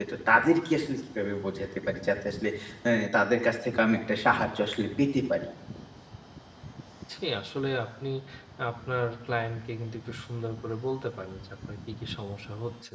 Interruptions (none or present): none